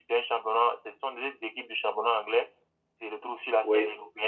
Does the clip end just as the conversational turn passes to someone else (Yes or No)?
No